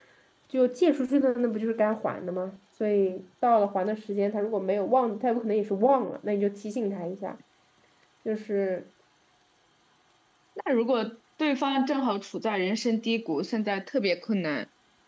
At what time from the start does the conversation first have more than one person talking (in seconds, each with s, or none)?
none